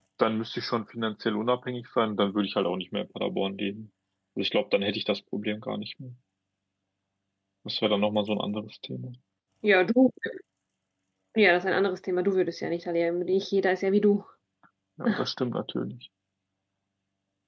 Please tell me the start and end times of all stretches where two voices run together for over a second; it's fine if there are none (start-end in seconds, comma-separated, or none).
none